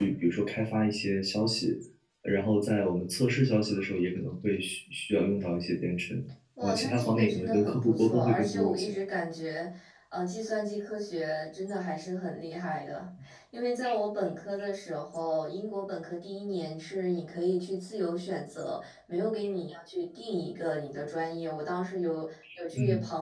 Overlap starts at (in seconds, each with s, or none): 6.6 s